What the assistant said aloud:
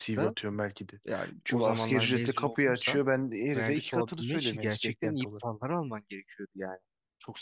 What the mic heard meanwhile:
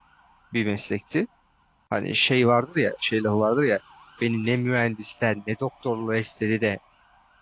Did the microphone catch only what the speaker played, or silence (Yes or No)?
No